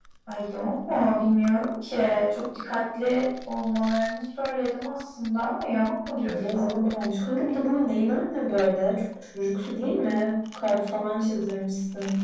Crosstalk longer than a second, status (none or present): none